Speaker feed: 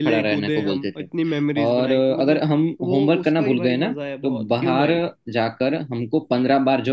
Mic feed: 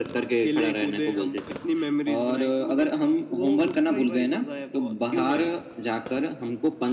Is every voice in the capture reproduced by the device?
Yes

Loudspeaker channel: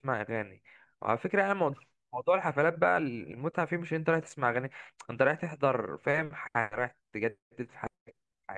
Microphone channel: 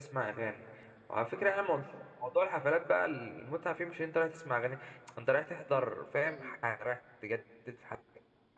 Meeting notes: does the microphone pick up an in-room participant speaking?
Yes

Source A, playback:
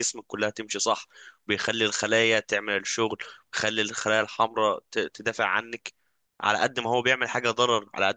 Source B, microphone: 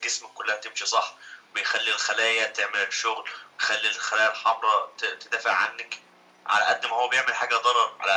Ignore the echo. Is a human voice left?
No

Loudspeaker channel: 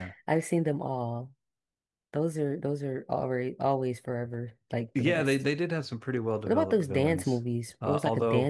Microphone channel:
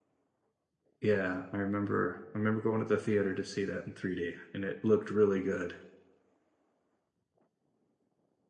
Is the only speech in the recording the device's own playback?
No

